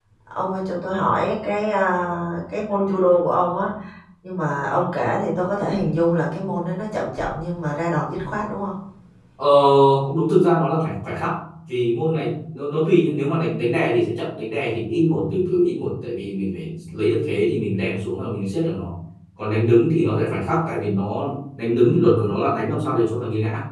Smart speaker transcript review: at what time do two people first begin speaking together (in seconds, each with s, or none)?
none